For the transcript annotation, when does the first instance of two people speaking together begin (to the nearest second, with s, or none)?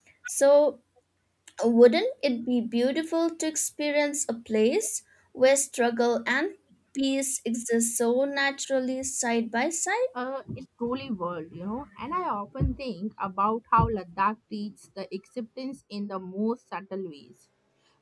none